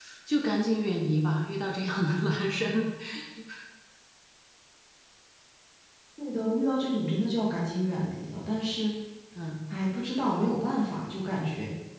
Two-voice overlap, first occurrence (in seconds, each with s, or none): none